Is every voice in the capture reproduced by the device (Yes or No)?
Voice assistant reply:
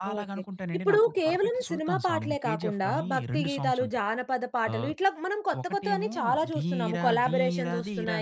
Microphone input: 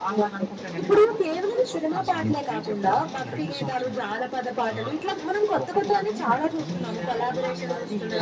Yes